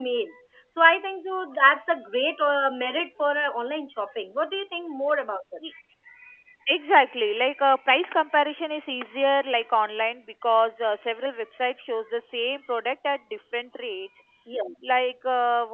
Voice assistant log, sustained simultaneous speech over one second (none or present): none